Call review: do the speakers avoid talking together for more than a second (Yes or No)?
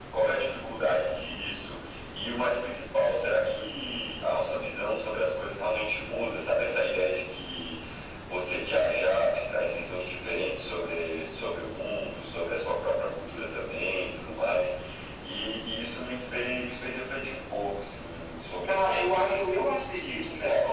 No